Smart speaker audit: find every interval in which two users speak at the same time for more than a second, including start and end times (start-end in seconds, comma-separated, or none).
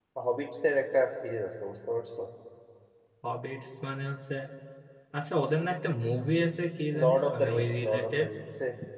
7.0-8.3